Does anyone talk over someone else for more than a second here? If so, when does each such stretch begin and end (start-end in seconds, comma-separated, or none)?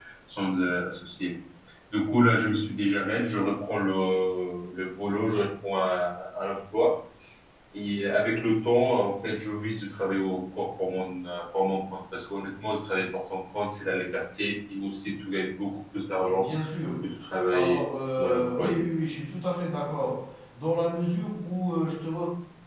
17.5-18.8